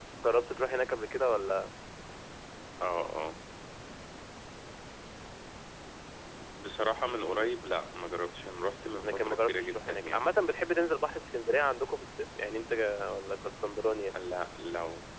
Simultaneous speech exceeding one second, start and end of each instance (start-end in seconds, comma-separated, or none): 9.0-10.3